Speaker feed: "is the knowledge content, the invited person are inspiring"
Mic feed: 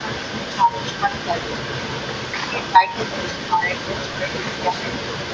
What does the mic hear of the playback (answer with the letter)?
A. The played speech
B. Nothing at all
A